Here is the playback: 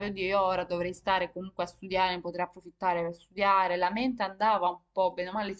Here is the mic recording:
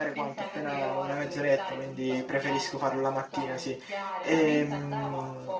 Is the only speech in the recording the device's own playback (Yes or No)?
No